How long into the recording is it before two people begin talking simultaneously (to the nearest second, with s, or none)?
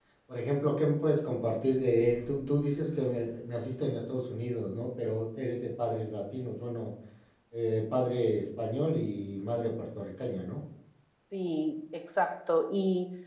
none